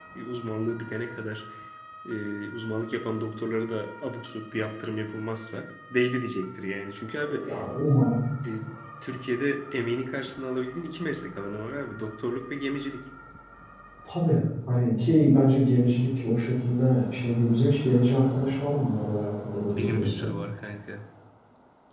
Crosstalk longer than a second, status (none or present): none